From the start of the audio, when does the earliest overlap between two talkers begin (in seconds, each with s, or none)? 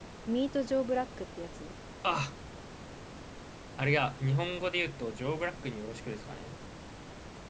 none